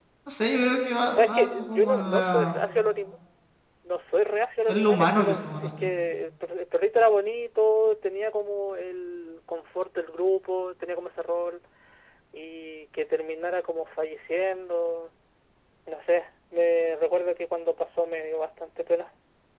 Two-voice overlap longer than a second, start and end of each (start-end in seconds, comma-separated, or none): 1.2-2.6, 4.7-5.9